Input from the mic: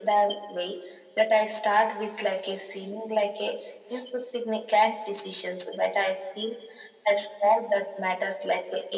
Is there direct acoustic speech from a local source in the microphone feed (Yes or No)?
No